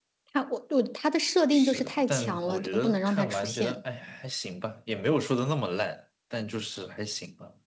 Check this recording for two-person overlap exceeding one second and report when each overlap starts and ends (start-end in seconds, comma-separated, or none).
1.5-3.8